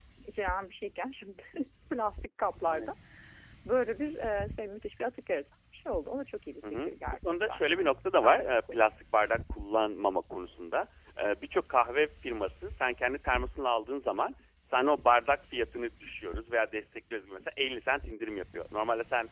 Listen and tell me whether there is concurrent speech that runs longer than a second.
Yes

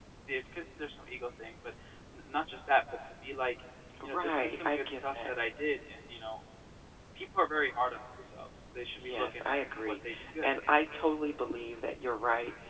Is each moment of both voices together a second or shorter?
No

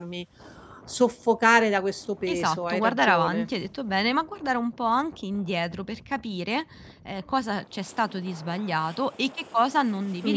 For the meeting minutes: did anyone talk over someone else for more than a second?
Yes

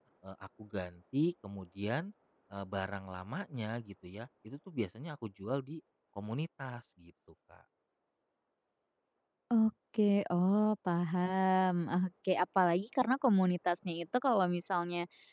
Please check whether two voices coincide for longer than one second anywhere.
No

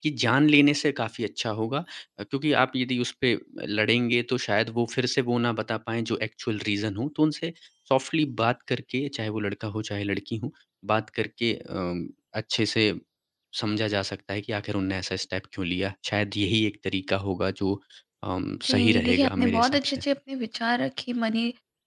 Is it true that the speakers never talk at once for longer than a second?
No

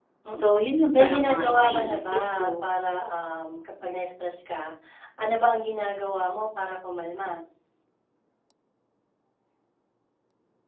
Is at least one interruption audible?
Yes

